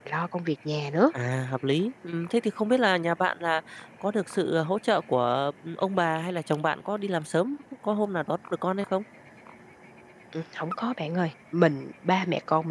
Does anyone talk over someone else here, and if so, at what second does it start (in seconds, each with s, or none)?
none